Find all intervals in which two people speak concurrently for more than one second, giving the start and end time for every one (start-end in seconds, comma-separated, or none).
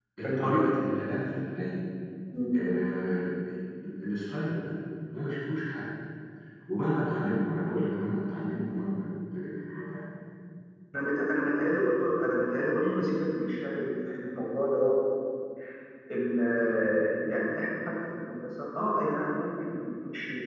none